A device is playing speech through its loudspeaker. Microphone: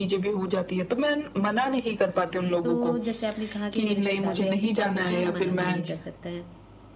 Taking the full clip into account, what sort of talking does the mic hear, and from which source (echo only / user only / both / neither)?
both